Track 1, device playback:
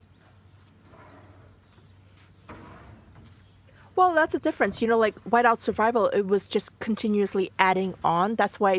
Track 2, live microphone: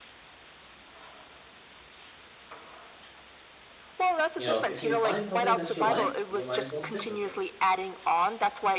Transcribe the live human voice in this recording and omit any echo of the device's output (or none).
you know, if you find something that you like, you might as well stick with it.